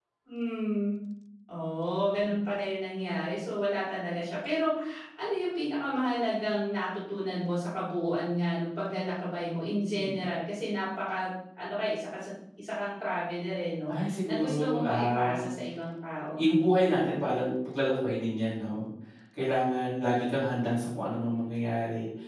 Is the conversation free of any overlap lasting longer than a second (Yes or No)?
No